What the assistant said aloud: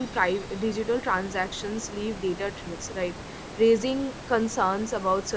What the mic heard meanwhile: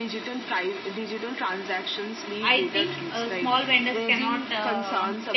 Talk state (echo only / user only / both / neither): both